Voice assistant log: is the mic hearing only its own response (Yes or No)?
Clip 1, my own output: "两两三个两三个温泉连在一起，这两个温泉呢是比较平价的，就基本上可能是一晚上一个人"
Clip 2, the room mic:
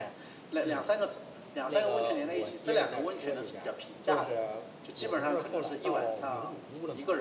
No